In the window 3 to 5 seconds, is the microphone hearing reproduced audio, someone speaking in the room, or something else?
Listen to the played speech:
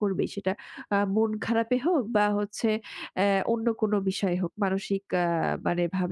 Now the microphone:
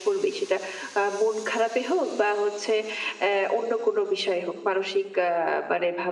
echo only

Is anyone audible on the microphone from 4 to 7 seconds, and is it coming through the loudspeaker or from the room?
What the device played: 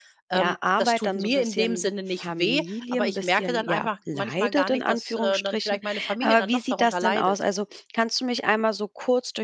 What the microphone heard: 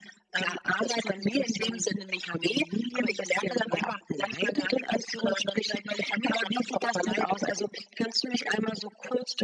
echo only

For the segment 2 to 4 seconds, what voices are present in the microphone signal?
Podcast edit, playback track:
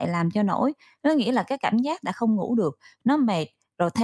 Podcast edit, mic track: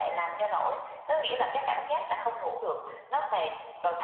echo only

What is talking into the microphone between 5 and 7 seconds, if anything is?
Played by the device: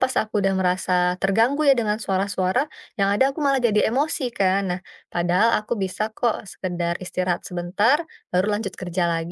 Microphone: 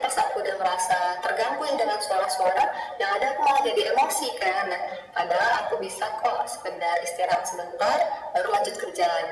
echo only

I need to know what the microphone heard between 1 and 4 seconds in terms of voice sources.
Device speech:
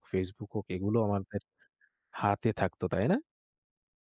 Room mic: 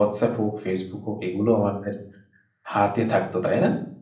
echo only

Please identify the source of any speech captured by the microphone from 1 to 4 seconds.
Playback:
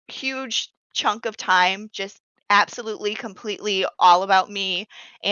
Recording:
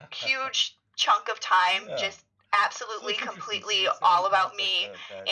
both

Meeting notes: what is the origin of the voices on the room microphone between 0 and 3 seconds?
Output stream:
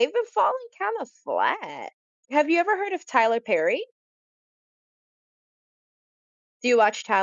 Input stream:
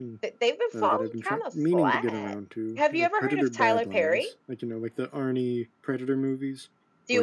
both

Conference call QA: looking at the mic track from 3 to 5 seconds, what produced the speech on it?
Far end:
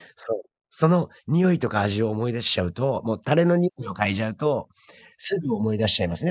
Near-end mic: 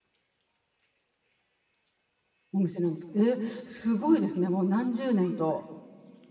user only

